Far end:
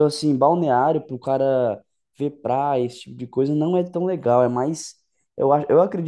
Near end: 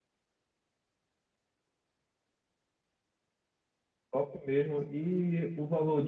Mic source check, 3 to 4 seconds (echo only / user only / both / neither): neither